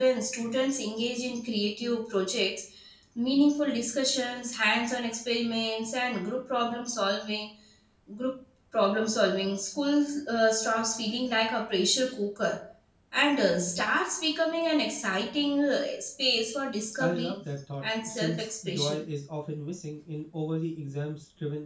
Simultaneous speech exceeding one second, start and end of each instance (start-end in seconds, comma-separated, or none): 17.8-19.1